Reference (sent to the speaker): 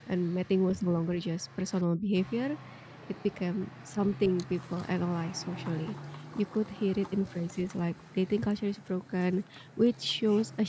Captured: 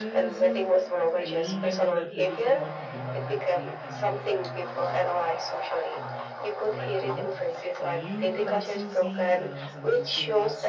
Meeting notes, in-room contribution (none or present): present